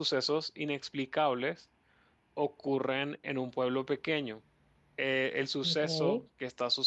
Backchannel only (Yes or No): Yes